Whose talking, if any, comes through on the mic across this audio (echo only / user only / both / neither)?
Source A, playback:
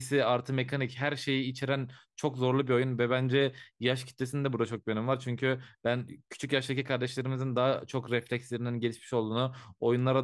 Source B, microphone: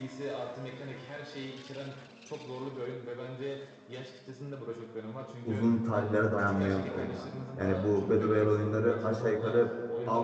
both